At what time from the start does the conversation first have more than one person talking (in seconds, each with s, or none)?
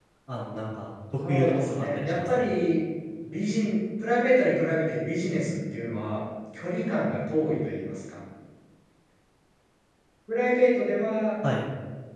1.3 s